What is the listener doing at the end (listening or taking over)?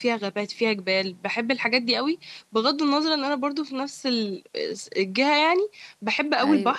listening